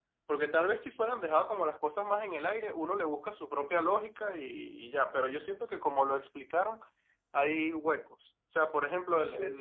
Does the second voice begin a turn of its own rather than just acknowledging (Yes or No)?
No